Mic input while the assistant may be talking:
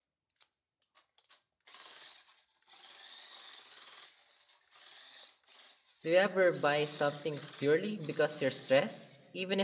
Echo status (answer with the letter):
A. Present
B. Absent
B